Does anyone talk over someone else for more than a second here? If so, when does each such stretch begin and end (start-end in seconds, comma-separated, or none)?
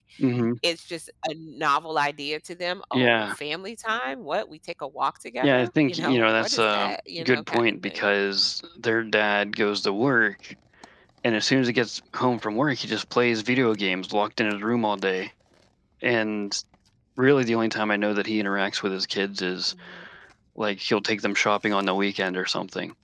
5.4-8.1